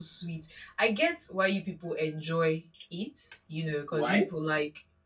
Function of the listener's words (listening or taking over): listening